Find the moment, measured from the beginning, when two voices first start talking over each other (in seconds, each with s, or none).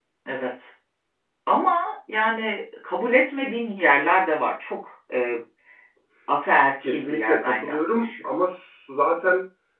6.8 s